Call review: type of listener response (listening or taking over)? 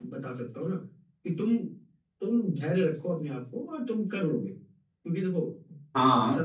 listening